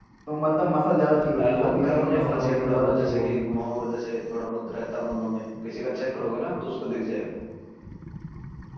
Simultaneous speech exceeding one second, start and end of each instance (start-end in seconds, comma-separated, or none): 1.4-3.5